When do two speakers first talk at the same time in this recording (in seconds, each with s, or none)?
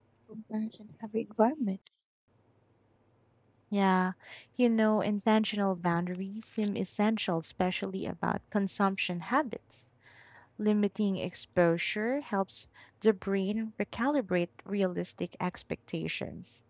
none